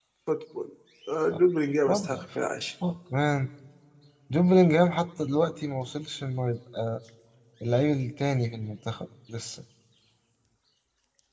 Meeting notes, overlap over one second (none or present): none